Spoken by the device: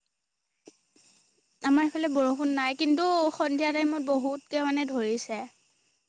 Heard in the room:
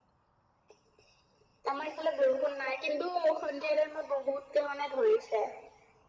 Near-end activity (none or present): none